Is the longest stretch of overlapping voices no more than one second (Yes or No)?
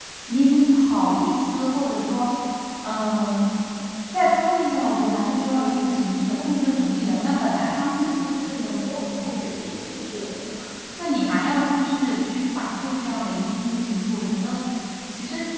Yes